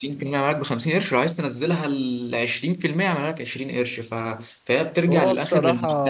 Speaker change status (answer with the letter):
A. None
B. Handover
B